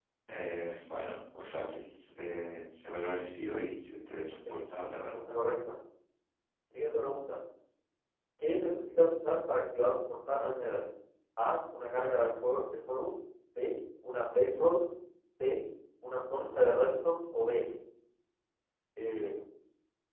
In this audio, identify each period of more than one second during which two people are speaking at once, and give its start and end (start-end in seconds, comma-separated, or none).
none